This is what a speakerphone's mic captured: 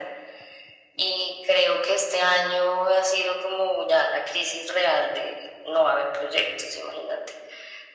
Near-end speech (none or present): none